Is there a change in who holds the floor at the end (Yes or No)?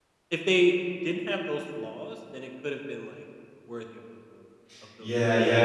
Yes